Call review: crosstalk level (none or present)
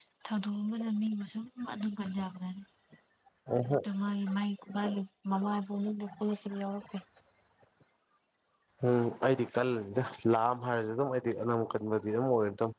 none